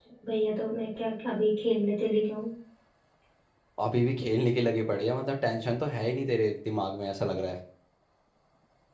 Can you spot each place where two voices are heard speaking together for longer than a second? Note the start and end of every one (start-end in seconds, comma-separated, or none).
none